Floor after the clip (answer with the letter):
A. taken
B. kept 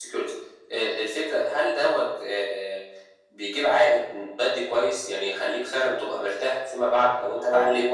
B